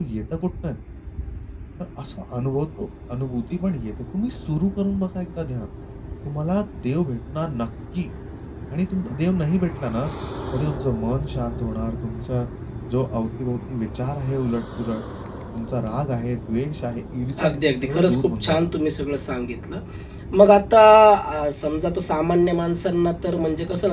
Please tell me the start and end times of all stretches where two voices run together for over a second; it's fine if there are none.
17.4-18.7

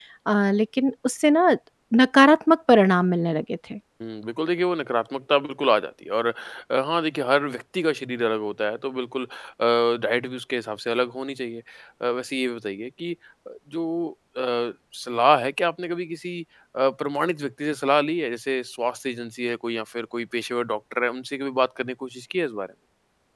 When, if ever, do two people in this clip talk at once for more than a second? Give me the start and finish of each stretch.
none

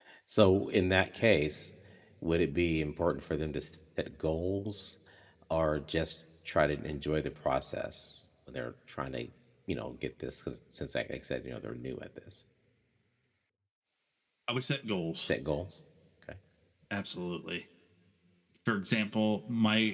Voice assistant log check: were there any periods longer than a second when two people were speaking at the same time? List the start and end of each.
none

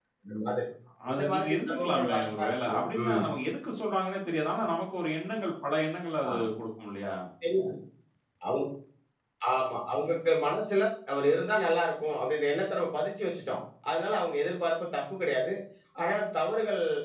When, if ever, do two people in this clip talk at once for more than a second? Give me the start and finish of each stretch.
1.1-3.2

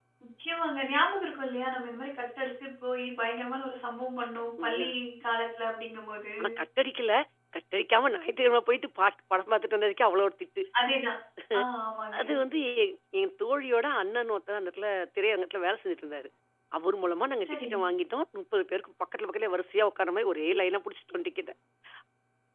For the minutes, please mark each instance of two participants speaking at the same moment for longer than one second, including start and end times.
none

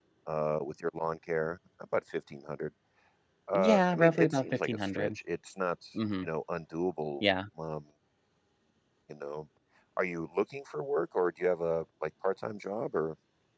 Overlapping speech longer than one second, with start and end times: 3.5-5.1

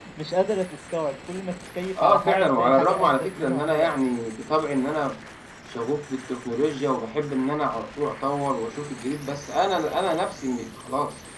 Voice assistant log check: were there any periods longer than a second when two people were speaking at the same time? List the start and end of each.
2.0-3.9

